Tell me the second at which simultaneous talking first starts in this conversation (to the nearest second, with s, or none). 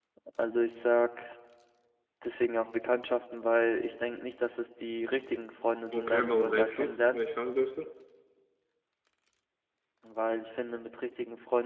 6 s